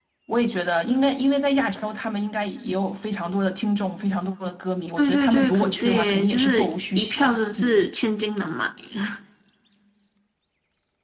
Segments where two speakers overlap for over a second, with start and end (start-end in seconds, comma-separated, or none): 5.0-7.8